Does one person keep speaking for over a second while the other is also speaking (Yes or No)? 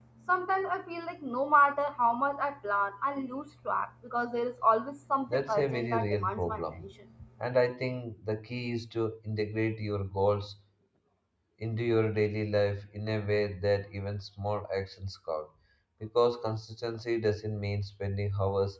Yes